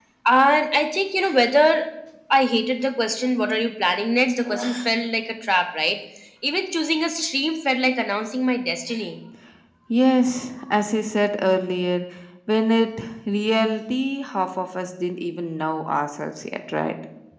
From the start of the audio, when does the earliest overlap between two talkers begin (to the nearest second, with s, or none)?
none